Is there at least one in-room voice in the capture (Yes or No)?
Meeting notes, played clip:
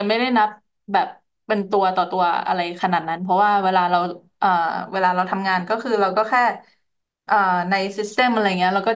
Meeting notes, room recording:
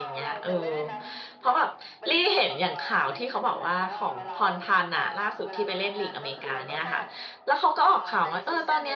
Yes